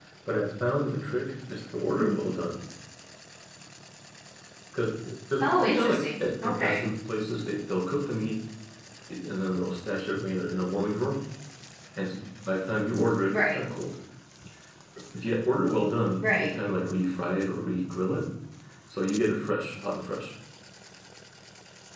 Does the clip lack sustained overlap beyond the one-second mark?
No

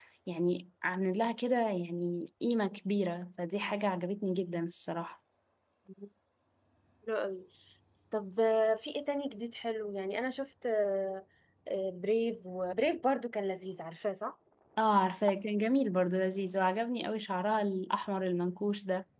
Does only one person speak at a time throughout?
Yes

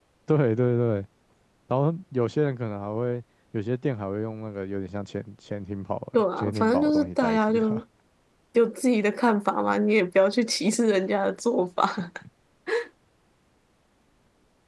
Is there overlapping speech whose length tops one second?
Yes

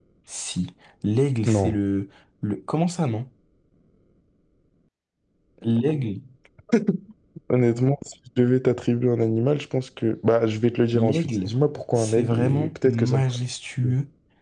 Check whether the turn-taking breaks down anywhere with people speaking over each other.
Yes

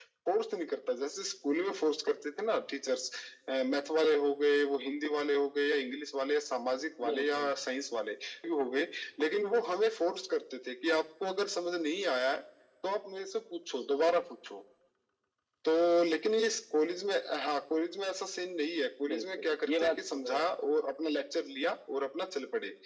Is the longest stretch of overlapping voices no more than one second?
No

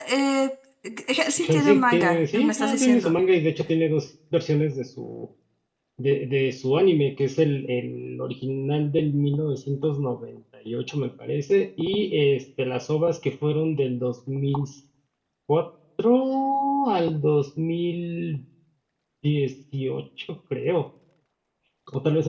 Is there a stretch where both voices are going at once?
Yes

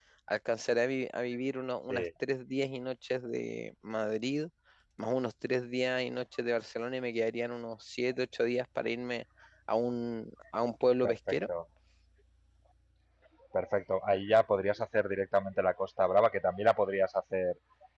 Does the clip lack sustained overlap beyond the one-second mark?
Yes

